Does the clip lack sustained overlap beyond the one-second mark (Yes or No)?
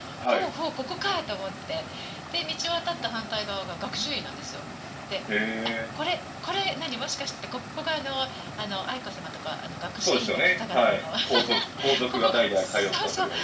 No